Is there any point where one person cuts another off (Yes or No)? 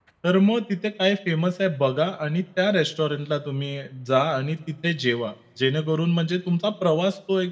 No